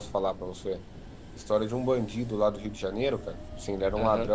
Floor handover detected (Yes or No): No